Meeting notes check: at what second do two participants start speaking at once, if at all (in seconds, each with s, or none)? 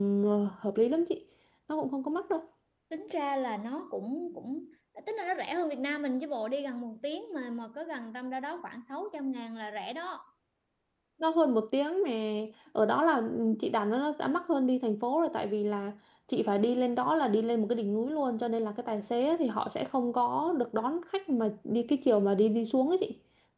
none